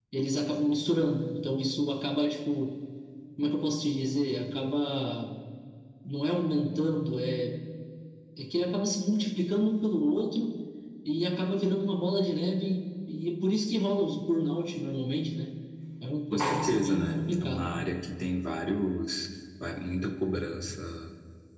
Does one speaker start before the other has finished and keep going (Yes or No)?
Yes